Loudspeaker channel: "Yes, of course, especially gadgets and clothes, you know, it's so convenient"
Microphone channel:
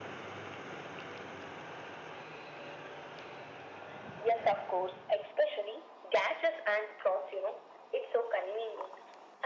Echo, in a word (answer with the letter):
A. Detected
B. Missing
A